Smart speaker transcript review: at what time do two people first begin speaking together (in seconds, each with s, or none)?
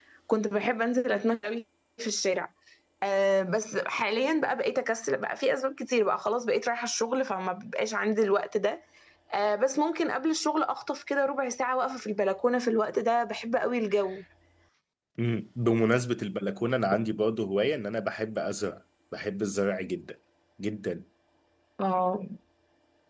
none